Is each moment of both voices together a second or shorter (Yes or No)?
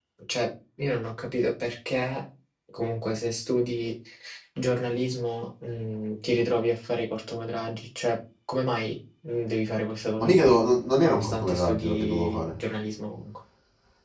No